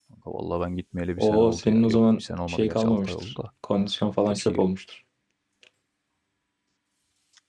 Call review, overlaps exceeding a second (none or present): present